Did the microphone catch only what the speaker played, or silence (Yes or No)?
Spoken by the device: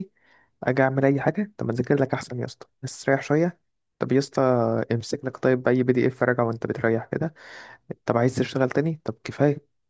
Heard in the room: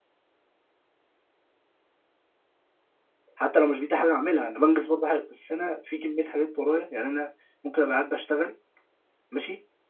No